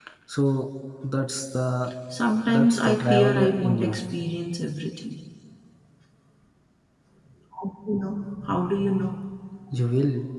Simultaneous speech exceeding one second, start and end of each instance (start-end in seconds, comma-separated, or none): 2.5-4.0